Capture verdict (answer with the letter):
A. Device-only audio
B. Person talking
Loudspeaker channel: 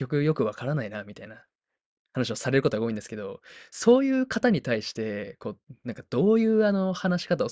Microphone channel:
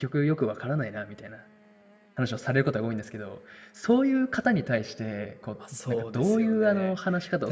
B